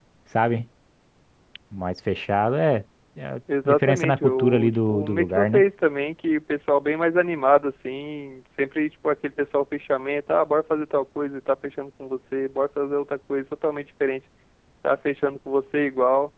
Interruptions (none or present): present